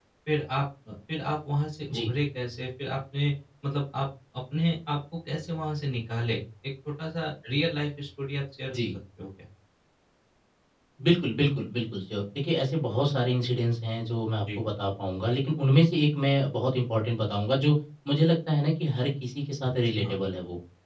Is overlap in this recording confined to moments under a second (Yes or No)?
Yes